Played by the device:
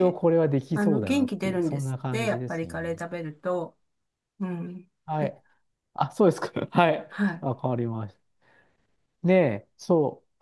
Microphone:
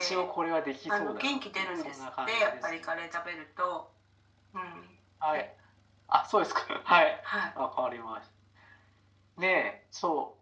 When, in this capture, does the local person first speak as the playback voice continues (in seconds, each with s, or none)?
none